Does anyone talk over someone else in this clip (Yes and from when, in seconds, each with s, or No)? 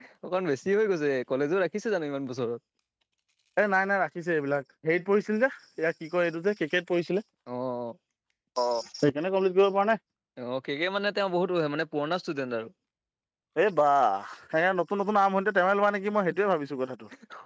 No